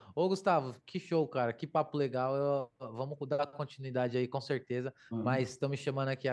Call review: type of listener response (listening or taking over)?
listening